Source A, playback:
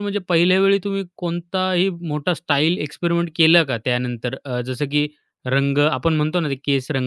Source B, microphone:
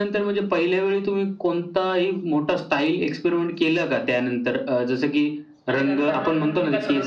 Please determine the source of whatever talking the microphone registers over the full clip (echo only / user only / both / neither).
both